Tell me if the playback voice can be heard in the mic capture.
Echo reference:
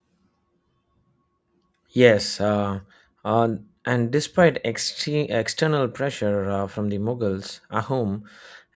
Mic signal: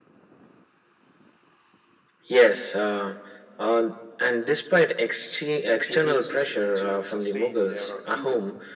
Yes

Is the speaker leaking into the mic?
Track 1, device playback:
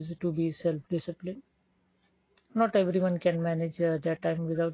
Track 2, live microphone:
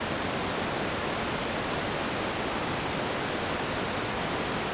No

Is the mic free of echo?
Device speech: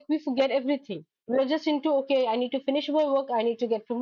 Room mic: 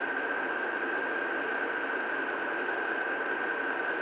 Yes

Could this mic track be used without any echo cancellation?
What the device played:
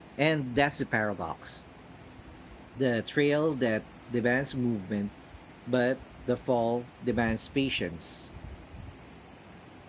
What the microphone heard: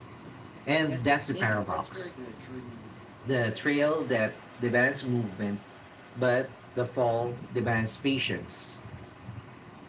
No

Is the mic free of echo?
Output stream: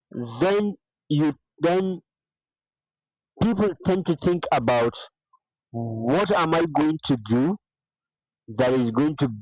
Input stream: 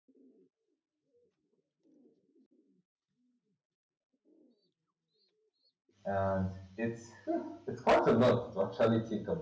Yes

